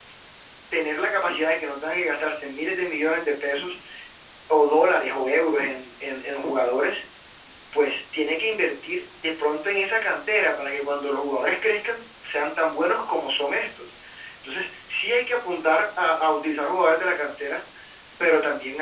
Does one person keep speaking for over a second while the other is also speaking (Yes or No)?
No